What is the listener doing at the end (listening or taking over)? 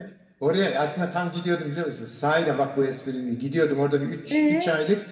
listening